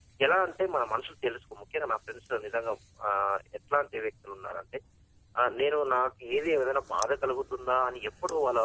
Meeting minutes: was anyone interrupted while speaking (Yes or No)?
No